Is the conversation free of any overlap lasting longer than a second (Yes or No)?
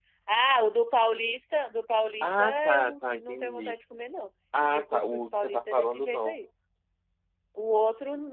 No